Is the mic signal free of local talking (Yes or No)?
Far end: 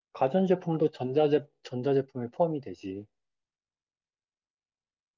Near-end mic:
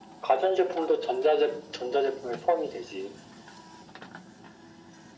Yes